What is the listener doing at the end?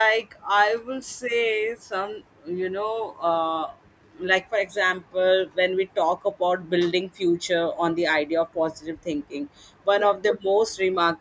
listening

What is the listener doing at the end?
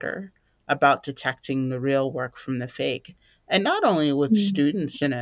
listening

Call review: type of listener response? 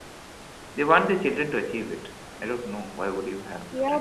taking over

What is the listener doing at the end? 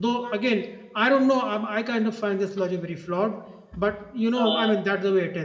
listening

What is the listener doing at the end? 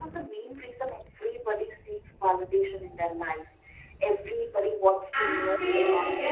taking over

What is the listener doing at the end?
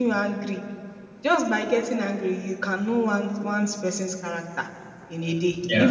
listening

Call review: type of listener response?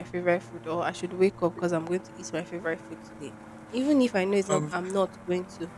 listening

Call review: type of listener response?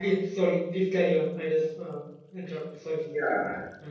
taking over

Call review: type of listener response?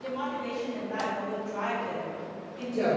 taking over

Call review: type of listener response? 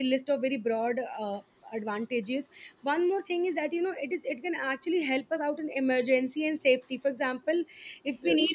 listening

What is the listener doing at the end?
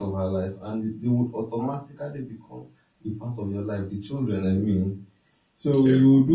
listening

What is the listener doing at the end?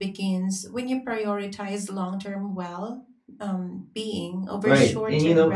taking over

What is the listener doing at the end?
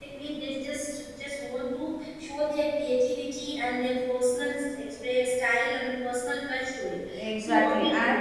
taking over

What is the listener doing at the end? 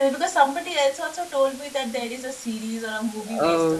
taking over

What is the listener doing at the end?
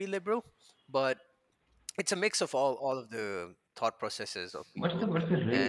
taking over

